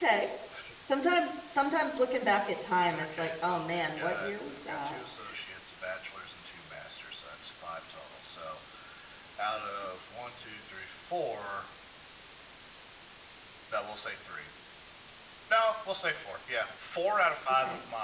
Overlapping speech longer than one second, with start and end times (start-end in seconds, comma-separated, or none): 2.9-5.0